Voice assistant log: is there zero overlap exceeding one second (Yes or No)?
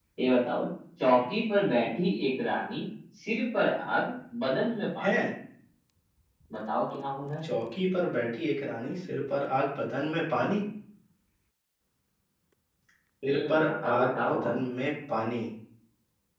No